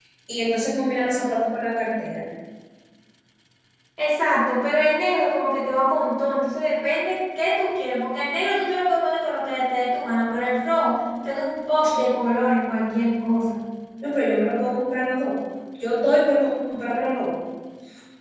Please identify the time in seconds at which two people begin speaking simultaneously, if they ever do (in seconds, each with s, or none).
none